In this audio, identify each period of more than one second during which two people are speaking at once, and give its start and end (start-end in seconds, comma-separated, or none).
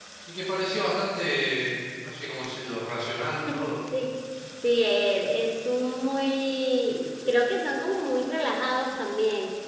none